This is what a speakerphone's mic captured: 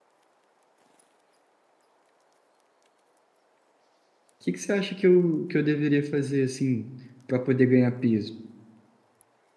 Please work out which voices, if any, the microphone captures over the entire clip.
user only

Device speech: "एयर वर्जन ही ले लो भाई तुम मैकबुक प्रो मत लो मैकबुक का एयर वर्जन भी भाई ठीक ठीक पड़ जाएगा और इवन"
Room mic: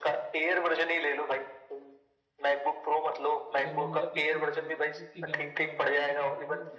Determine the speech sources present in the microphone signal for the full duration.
both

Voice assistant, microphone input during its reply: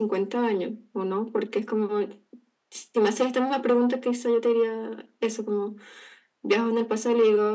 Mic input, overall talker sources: echo only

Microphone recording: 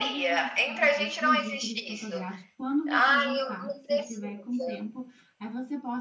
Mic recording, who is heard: both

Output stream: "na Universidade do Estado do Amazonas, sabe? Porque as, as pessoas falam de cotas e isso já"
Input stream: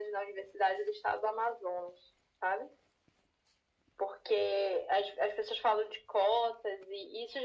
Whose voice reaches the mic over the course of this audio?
echo only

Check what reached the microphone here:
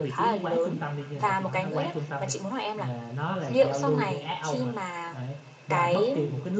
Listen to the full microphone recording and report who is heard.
both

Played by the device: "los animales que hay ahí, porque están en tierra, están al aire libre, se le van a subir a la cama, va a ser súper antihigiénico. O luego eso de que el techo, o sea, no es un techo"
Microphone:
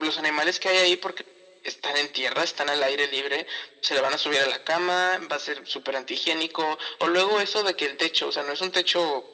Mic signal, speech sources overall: echo only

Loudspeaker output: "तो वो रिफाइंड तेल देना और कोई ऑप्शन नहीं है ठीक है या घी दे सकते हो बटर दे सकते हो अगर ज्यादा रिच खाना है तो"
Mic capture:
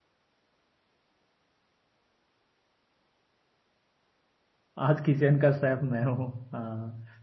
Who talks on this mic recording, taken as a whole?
user only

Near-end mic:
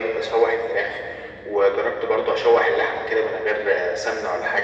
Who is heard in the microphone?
echo only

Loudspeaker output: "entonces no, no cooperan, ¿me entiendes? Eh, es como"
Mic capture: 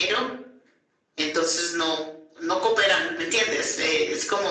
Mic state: echo only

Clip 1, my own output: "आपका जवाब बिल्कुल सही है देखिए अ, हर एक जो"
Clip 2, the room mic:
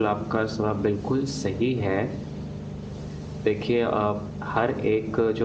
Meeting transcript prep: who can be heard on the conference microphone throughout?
echo only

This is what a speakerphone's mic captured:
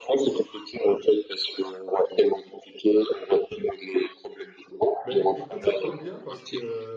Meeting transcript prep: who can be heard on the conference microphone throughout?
both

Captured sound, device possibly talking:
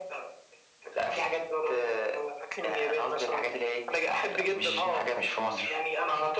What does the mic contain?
both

